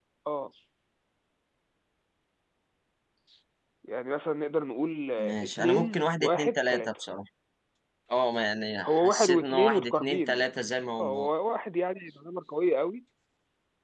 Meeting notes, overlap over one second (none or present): present